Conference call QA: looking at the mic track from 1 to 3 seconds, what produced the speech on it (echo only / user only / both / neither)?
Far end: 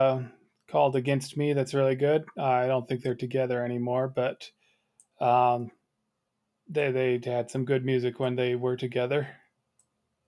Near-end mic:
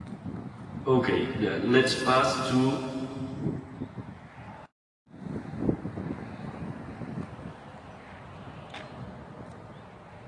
user only